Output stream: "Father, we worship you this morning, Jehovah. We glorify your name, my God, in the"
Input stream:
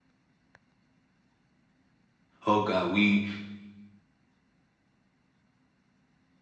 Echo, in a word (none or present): none